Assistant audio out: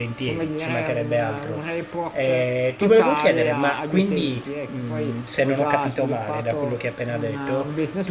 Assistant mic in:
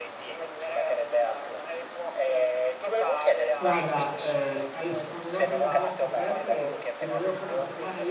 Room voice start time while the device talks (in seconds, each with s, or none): 3.5 s